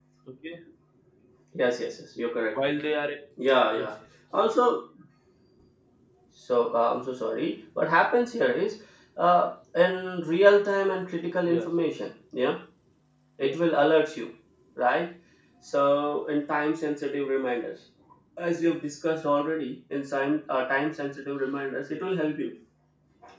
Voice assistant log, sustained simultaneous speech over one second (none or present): none